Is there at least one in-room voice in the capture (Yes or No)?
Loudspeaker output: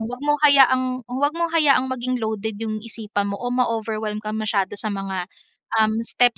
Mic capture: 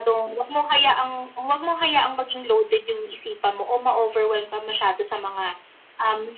No